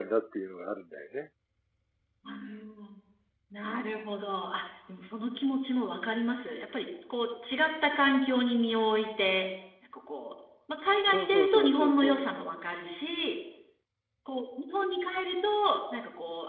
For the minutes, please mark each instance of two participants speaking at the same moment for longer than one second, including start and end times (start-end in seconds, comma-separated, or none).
11.1-12.3